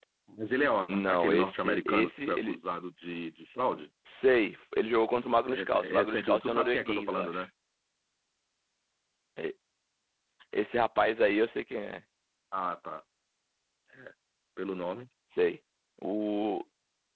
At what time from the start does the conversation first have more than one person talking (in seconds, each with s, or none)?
0.9 s